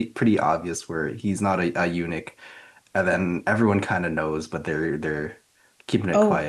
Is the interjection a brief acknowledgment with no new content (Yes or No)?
No